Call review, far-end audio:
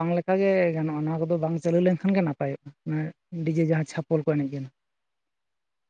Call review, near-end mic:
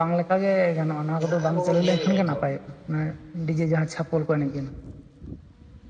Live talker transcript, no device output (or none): ᱡᱟᱦᱟᱸ ᱟᱵᱚ ᱵᱚ ᱧᱮᱞᱮᱜᱼᱟ ᱱᱤᱛᱚᱜ᱾